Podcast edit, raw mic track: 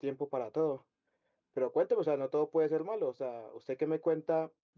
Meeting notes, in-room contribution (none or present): present